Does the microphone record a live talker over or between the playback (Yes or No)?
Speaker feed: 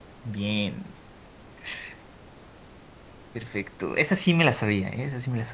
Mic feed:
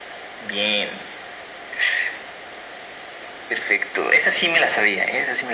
No